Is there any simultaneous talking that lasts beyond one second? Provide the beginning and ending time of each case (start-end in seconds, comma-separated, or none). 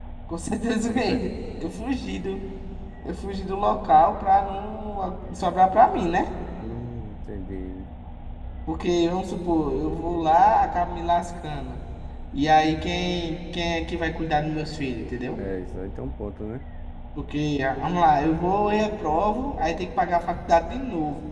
none